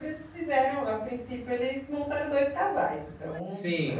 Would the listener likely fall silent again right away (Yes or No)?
No